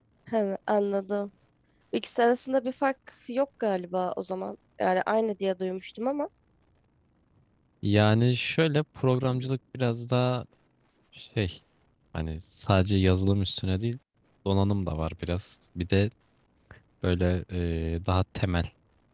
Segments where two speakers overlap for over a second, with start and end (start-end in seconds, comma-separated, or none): none